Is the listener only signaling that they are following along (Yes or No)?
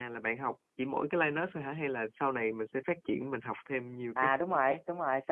No